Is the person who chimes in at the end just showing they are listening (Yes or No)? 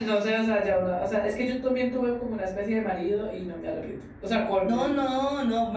No